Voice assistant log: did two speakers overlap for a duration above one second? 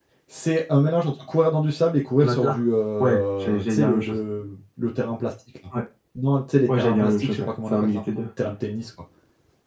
Yes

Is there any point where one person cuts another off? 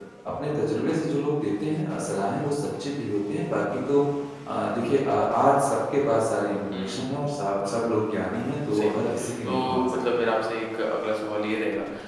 Yes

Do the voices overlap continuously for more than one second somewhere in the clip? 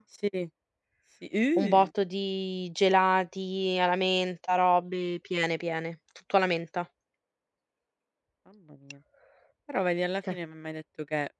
No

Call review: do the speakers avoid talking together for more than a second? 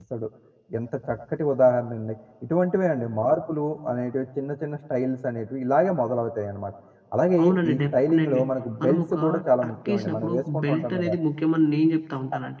No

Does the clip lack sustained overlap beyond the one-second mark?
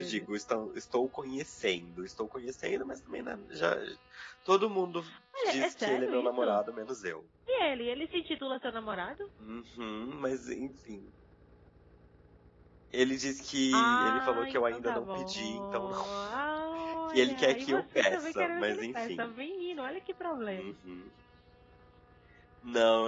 No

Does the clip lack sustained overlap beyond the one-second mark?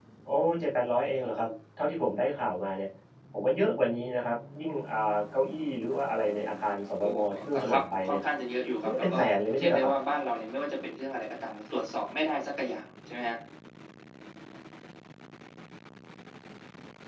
No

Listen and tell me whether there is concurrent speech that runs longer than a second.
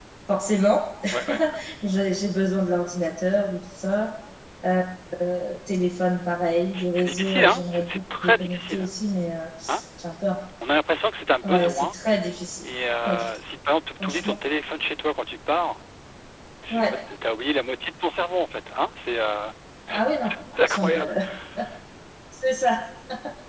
Yes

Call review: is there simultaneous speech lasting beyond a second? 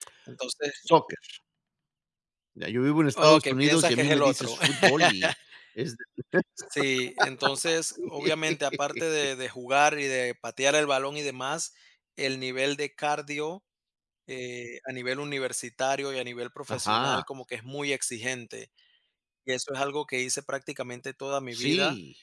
Yes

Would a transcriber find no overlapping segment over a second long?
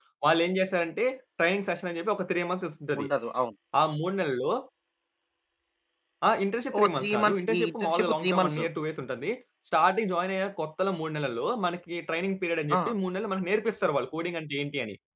No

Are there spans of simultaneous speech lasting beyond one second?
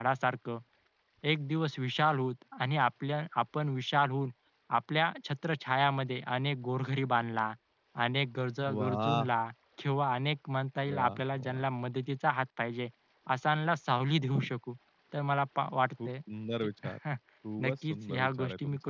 Yes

